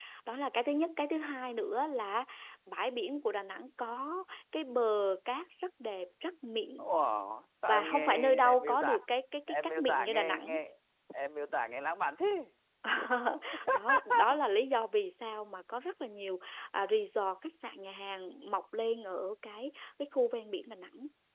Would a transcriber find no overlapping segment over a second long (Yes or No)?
No